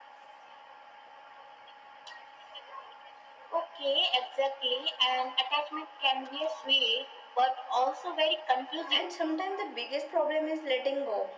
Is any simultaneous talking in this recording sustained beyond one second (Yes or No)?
No